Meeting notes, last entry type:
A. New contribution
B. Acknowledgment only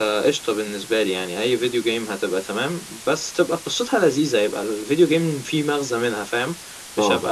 B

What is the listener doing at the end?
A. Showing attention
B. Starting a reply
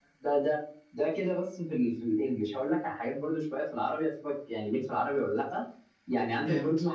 A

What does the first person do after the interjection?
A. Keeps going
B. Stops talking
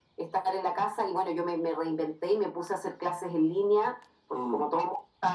A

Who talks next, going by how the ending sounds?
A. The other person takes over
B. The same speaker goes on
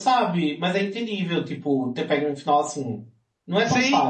A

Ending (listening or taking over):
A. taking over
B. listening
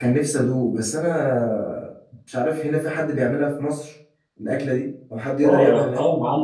A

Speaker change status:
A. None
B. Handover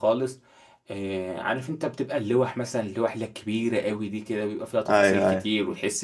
A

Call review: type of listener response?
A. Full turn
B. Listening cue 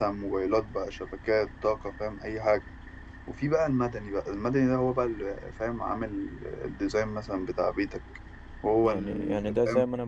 A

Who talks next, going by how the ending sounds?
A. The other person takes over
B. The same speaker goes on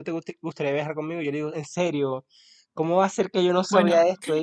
A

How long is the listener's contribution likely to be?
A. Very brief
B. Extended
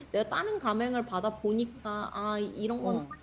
A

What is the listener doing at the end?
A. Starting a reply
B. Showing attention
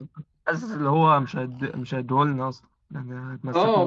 A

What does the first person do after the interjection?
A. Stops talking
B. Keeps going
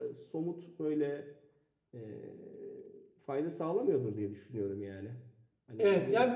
A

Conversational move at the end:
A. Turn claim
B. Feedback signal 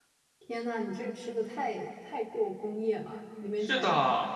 A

